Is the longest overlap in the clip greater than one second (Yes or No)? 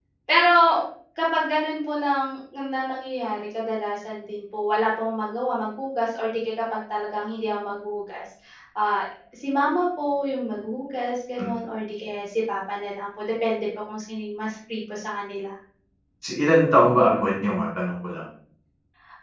No